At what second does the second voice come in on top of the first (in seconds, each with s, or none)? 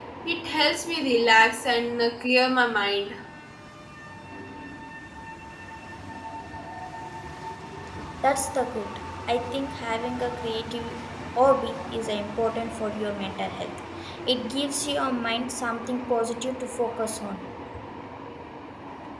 none